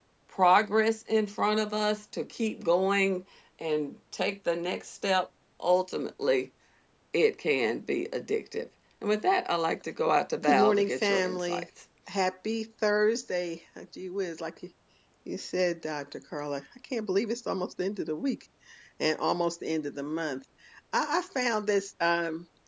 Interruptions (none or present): present